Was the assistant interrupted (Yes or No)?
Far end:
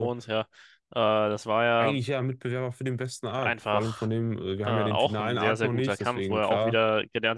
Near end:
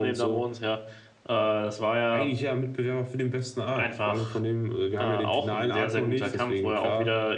No